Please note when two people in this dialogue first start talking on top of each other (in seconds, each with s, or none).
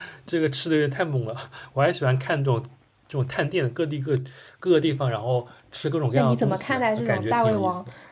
6.1 s